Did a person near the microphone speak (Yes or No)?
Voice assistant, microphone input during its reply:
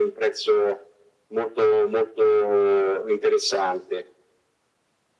No